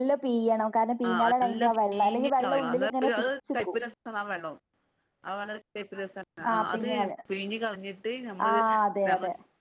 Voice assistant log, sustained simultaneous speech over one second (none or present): present